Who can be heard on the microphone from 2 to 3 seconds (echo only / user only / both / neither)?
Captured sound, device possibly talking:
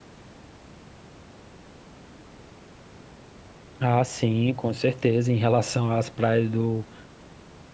neither